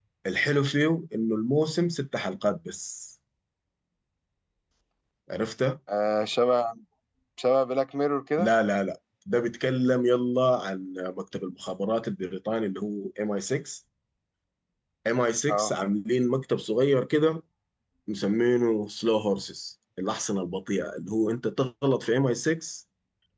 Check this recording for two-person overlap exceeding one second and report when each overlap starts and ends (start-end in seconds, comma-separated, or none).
none